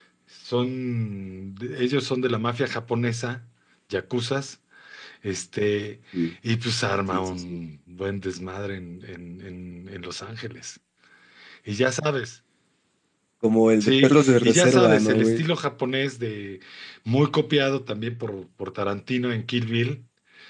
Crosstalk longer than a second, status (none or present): present